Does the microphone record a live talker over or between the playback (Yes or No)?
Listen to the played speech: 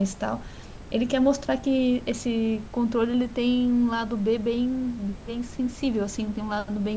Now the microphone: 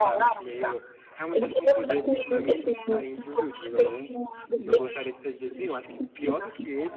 Yes